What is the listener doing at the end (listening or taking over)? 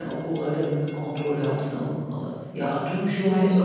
listening